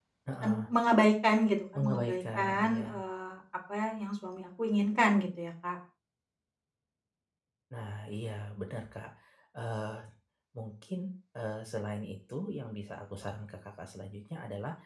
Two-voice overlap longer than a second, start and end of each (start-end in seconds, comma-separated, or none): 1.8-3.0